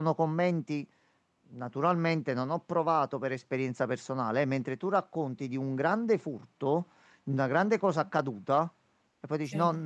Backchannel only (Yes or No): Yes